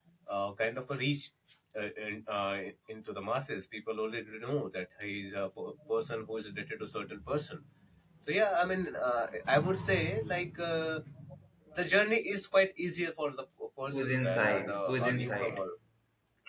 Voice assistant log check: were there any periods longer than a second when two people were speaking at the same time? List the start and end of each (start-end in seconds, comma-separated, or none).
13.9-15.6